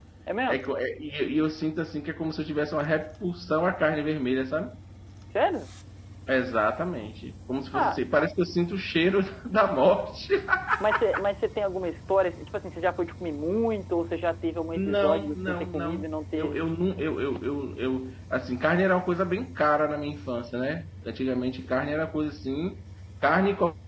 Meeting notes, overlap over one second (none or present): present